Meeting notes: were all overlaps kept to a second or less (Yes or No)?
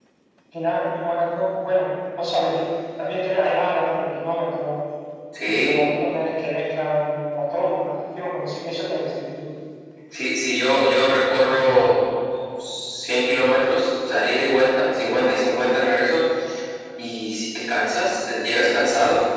Yes